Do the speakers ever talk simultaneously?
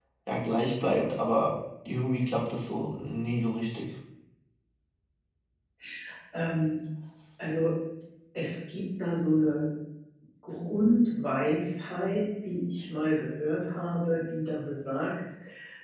No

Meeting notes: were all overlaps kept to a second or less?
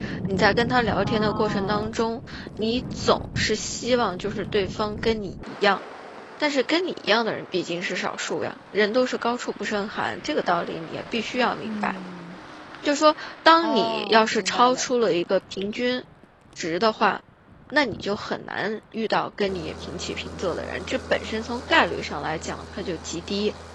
No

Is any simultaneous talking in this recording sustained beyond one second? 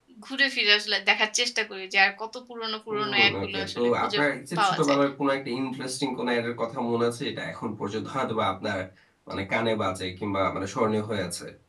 Yes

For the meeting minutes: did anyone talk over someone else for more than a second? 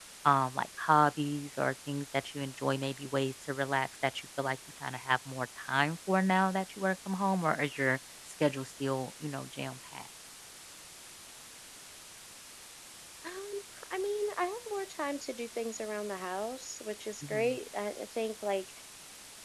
No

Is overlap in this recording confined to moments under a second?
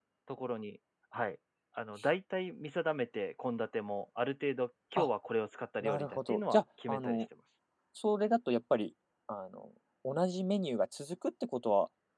No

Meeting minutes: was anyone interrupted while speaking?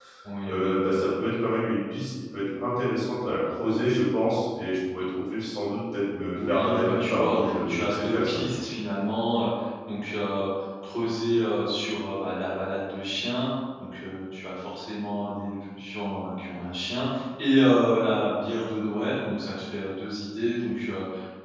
Yes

